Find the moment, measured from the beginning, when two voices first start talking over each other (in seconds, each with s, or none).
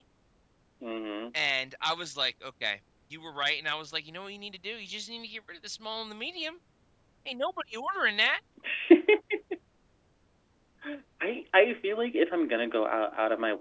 none